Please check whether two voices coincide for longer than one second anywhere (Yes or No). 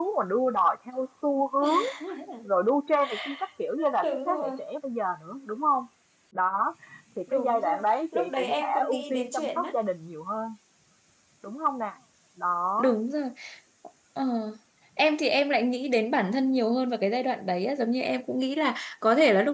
Yes